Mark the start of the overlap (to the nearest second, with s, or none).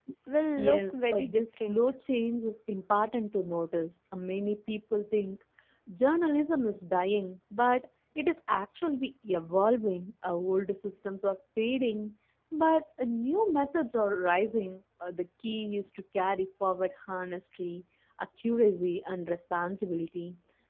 1 s